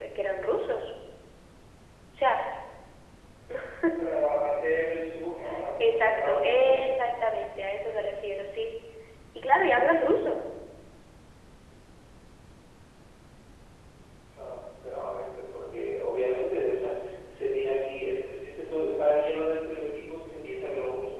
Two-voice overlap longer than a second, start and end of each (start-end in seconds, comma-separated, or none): 5.8-7.0